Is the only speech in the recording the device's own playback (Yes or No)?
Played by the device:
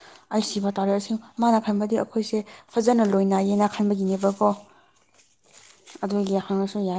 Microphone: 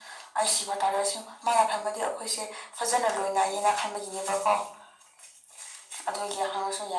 Yes